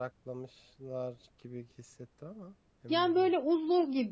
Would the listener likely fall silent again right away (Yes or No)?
No